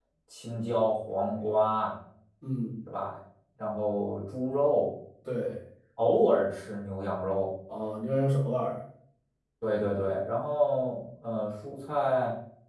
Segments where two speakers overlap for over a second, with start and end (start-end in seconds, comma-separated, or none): none